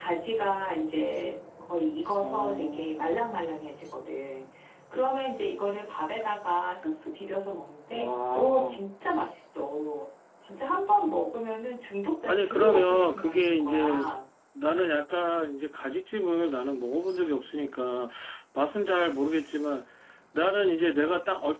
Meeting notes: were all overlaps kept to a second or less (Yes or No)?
No